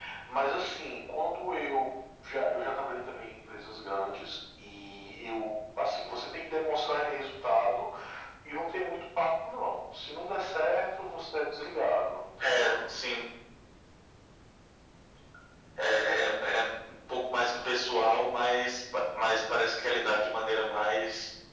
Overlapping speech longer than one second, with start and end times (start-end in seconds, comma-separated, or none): none